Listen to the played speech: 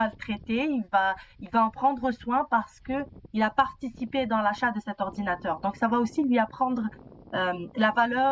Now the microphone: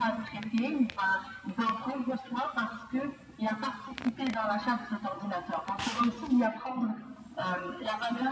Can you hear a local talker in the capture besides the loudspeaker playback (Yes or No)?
No